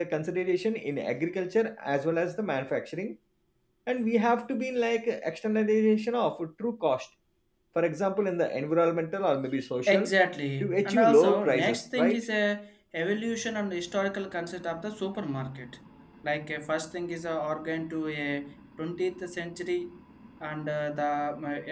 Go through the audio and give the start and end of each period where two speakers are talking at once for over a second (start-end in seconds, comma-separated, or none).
10.6-12.2